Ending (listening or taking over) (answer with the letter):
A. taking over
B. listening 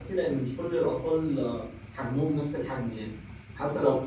A